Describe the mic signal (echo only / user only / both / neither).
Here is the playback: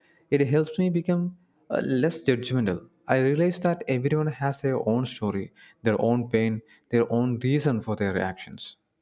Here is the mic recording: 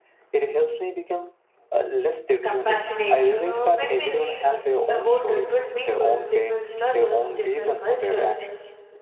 both